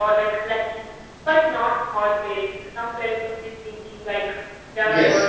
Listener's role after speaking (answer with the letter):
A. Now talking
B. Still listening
A